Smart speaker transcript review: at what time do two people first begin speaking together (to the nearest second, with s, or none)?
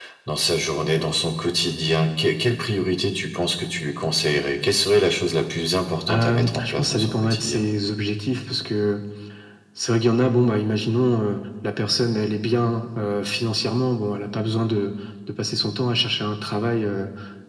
6 s